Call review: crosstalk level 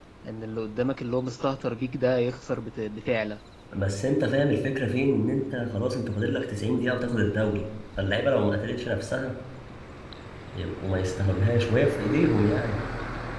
none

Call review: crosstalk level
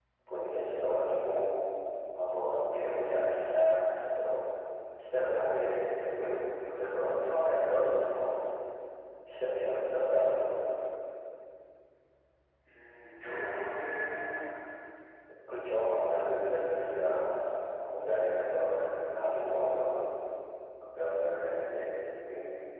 none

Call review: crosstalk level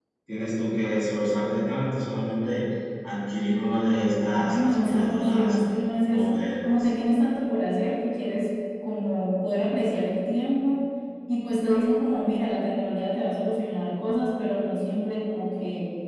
present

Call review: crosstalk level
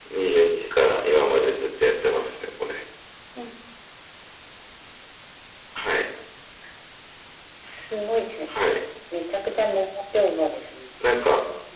none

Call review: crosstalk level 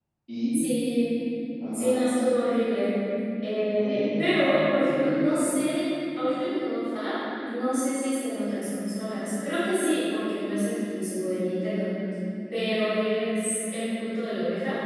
present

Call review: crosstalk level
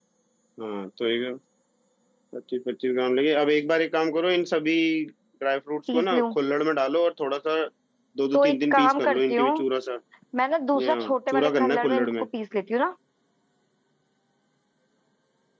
present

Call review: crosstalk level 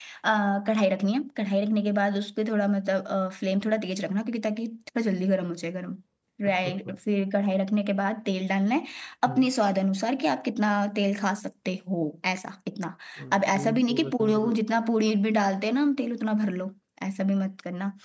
present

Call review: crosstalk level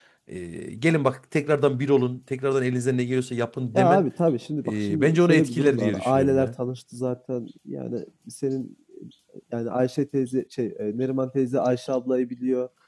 present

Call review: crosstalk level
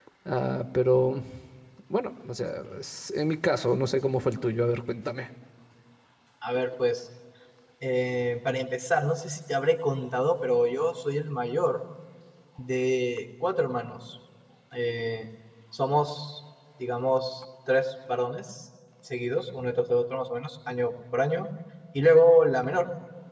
none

